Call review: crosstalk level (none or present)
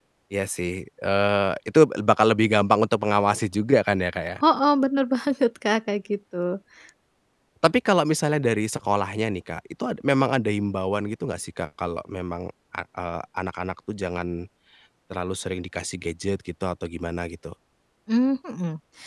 none